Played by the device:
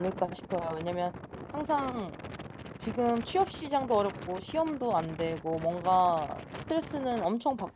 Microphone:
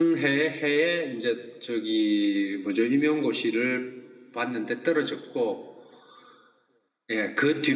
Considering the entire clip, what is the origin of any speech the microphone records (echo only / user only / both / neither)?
user only